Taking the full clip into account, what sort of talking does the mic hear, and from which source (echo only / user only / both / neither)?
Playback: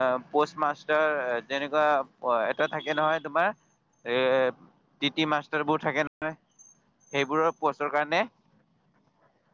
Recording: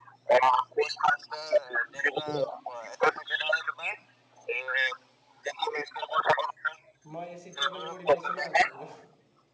both